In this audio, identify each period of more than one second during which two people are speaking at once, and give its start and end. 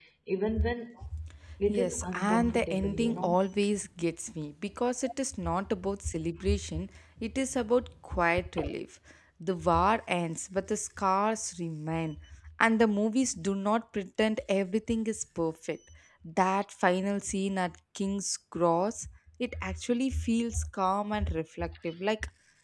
1.7-3.4

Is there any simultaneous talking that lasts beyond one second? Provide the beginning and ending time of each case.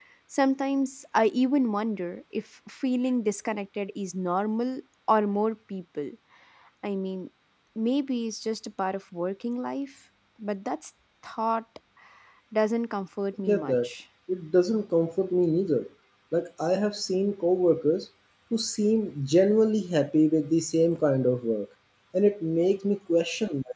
none

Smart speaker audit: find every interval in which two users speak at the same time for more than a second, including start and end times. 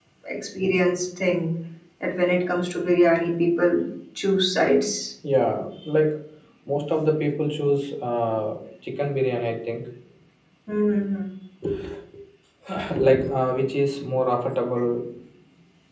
none

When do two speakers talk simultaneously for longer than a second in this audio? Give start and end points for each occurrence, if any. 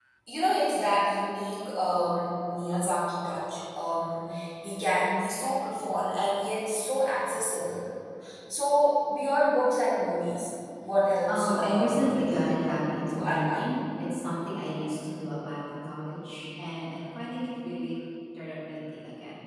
11.3-13.7

